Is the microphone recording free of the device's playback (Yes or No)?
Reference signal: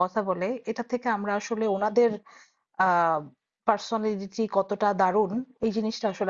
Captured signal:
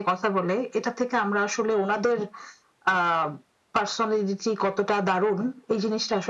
No